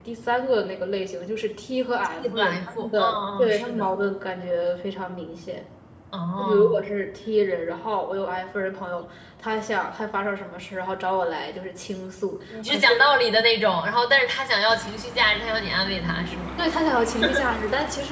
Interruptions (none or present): present